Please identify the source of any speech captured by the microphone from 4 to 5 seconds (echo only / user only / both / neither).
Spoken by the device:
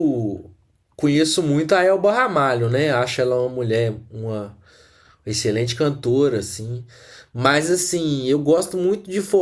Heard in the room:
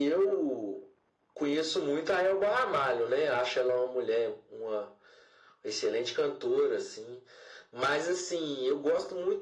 echo only